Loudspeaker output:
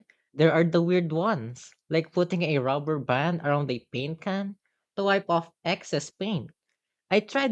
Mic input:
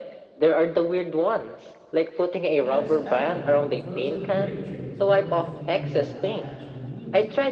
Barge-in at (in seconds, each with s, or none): 2.6 s